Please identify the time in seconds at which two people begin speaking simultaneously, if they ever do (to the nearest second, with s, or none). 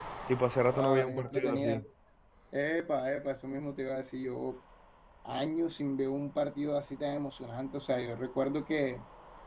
1 s